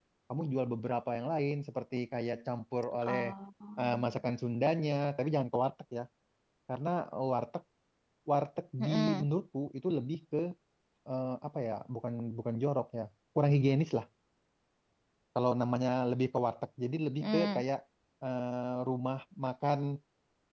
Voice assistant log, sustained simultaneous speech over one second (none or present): none